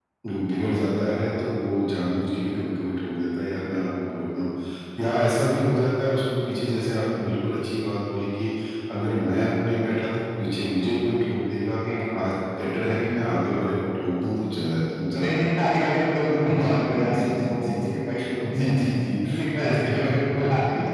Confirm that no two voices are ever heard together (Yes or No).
No